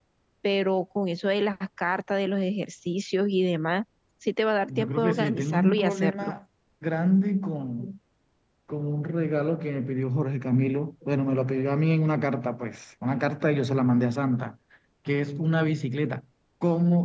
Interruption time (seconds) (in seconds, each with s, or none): 4.7 s